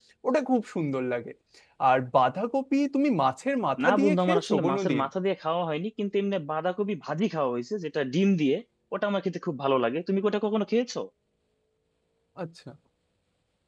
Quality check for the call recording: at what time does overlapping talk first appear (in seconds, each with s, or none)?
3.8 s